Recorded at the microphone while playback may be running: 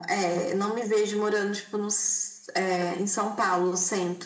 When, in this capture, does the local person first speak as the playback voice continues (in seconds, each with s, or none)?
none